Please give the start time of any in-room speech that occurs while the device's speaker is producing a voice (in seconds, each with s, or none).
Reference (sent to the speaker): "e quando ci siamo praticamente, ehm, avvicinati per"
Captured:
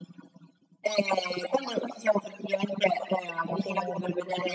3.5 s